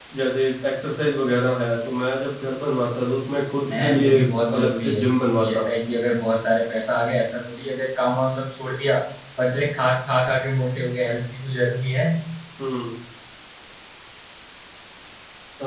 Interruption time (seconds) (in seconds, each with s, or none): 3.7 s